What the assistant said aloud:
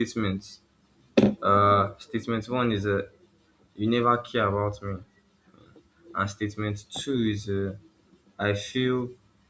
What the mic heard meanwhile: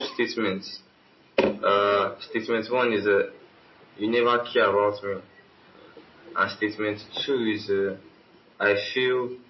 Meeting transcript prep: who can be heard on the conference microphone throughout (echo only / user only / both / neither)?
echo only